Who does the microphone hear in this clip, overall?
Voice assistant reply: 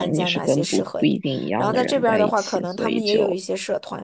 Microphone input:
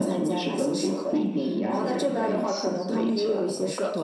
both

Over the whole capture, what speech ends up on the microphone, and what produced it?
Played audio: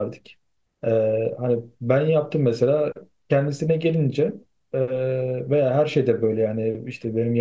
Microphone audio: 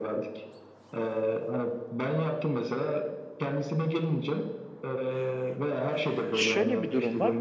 both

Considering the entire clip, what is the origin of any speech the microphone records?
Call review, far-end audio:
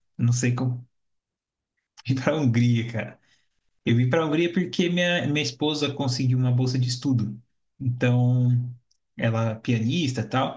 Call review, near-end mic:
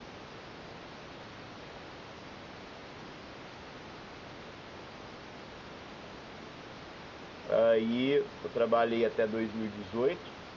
user only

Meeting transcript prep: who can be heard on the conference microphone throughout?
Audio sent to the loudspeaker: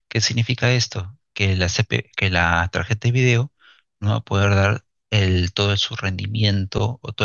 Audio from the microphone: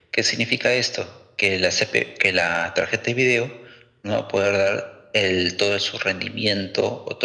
echo only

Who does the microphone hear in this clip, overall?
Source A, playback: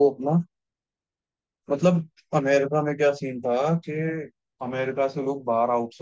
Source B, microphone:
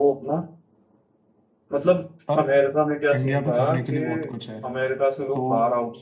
both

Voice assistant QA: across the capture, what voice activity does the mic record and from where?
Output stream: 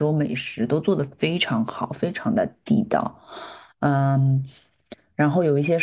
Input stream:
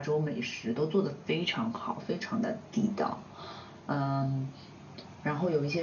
echo only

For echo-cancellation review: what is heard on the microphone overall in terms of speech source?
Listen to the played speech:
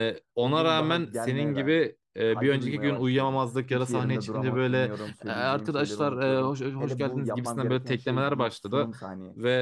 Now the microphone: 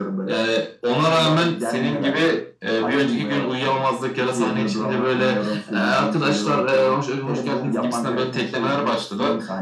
echo only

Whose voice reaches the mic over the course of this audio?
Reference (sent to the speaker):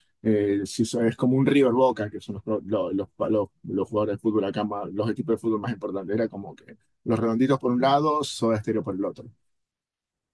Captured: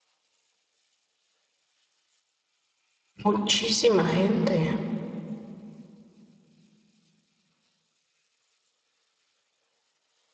user only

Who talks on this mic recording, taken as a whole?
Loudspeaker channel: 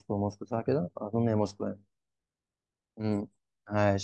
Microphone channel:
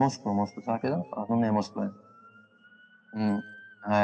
echo only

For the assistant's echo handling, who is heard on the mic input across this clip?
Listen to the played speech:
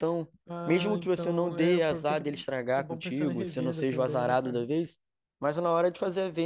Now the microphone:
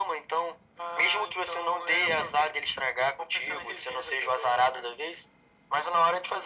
echo only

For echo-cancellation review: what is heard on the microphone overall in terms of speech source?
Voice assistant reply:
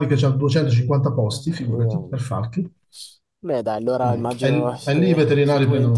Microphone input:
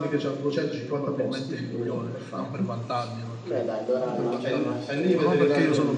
both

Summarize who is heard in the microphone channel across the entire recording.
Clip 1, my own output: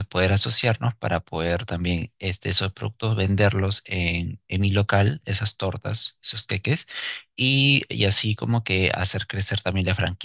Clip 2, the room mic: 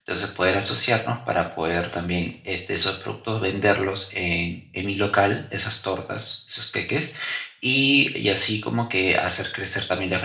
echo only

